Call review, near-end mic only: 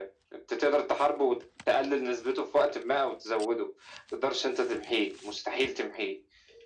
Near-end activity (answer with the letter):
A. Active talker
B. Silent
B